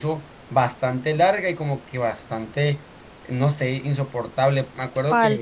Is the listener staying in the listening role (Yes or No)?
Yes